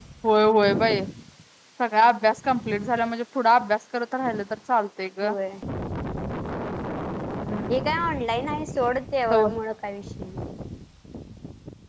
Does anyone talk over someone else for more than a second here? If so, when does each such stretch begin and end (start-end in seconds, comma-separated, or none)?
none